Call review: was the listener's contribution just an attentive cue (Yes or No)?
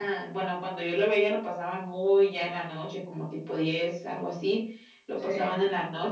Yes